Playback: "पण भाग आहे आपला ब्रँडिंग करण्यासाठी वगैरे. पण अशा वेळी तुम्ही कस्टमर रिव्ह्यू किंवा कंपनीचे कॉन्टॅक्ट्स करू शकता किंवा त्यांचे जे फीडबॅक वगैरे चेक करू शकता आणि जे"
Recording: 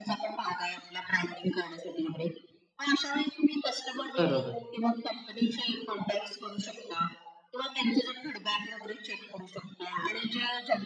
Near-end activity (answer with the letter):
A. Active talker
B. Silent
A